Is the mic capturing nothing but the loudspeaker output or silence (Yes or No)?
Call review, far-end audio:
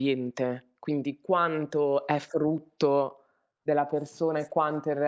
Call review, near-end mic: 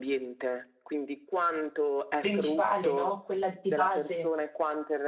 No